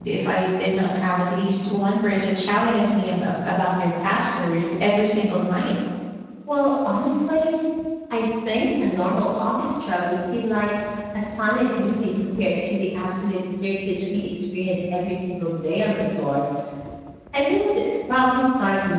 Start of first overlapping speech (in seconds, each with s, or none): none